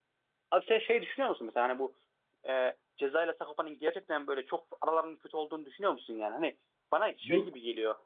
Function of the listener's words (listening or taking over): listening